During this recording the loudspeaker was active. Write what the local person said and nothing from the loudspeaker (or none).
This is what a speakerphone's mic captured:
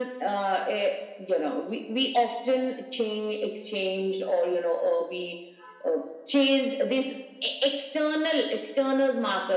none